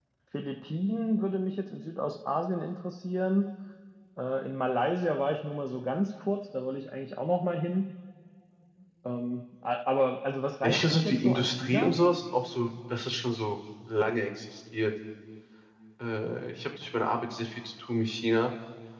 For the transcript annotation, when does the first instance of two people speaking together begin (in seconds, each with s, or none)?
10.6 s